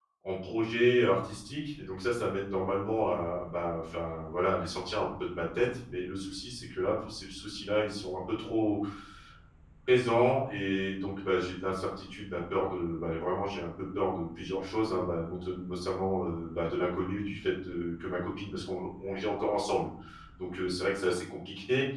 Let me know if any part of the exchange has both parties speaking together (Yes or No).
No